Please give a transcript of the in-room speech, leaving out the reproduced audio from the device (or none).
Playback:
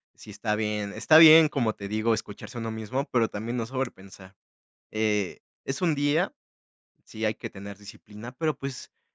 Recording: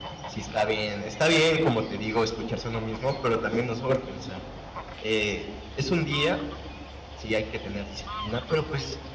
none